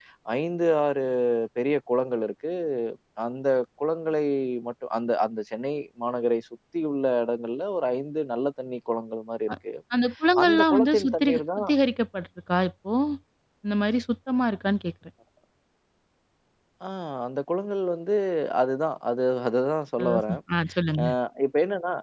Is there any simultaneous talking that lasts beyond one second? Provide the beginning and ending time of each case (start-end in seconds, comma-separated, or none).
10.4-11.7